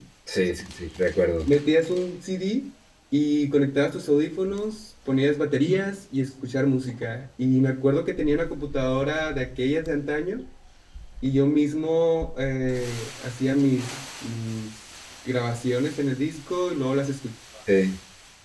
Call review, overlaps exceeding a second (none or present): none